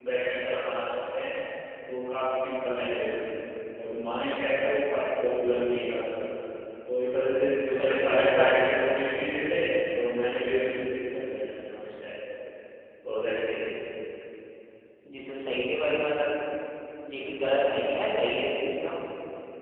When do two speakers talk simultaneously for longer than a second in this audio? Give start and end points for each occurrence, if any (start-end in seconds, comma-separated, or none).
7.7-8.9